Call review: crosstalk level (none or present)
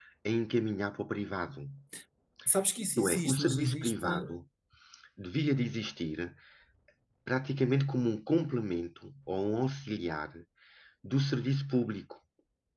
present